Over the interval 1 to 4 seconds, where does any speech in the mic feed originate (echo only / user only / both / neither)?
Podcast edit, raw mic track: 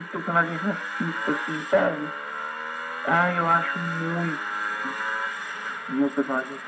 echo only